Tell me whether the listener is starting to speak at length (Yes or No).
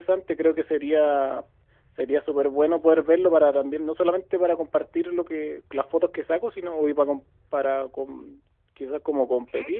No